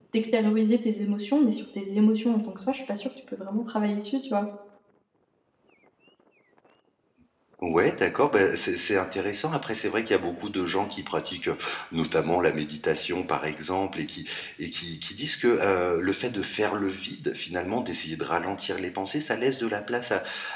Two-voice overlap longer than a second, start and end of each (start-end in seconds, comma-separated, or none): none